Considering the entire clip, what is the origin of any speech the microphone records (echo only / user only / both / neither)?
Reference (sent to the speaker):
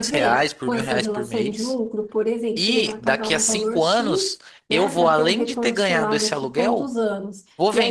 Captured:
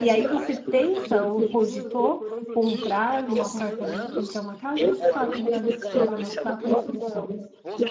both